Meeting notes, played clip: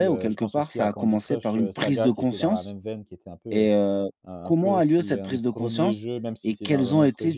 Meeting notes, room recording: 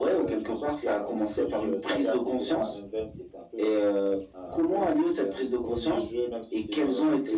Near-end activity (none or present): none